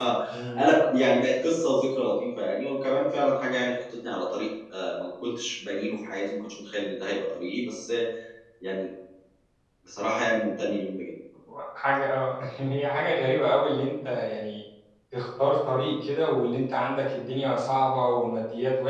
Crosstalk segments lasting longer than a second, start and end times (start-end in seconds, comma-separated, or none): none